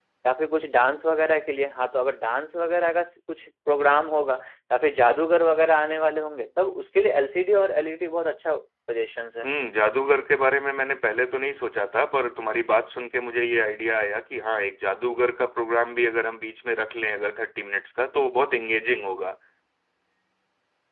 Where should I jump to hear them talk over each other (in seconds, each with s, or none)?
none